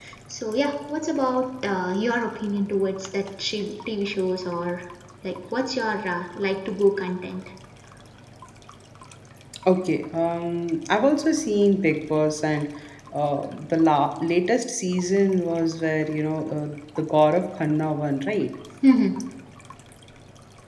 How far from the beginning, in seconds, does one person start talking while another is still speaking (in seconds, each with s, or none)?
none